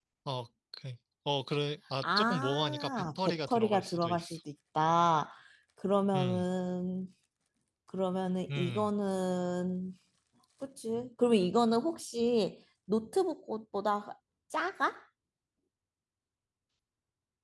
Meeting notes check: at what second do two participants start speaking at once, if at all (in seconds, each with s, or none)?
2.0 s